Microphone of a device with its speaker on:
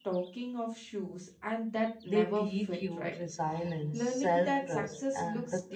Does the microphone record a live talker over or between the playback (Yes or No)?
Yes